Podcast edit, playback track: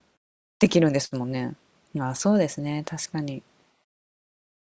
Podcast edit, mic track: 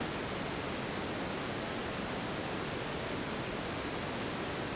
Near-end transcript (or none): none